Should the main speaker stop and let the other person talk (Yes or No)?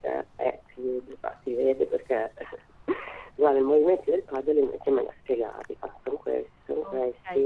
Yes